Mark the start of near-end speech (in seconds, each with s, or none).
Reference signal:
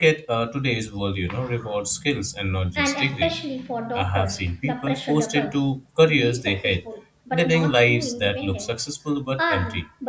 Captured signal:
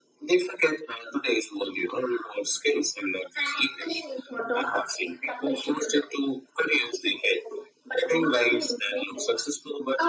none